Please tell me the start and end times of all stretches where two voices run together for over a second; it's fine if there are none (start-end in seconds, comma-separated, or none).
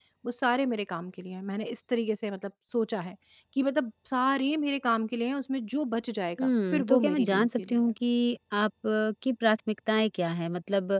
6.4-7.9